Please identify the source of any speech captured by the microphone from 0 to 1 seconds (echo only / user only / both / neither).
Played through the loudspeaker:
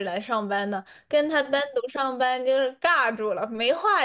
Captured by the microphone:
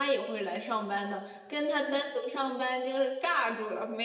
echo only